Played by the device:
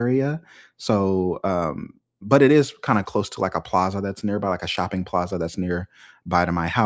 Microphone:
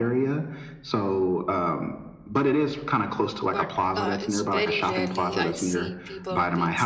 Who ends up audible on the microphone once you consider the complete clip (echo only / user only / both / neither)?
both